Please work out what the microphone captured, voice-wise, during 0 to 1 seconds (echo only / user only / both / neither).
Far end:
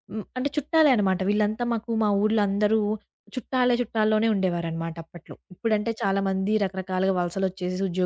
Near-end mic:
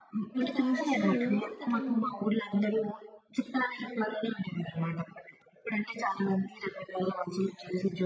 both